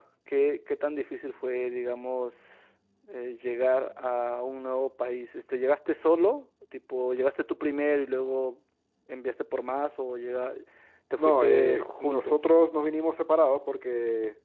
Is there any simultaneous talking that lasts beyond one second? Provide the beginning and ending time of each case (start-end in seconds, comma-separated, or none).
11.2-12.4